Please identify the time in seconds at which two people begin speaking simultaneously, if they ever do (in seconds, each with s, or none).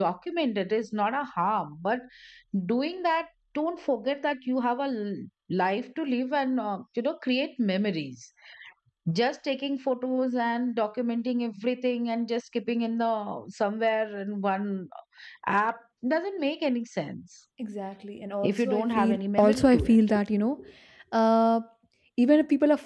18.4 s